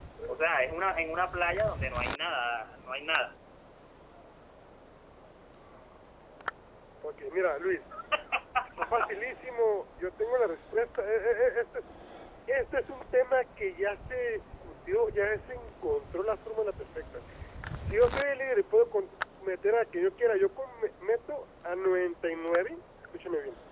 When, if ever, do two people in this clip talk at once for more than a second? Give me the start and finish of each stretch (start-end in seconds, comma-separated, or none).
none